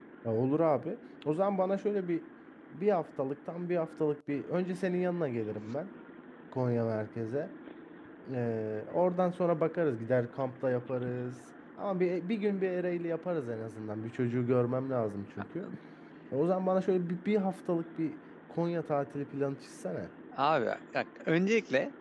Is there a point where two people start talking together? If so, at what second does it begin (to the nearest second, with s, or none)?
none